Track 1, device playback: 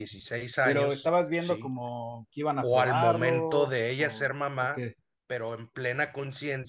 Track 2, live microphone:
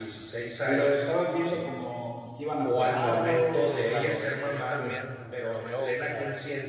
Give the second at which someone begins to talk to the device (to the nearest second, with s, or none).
4 s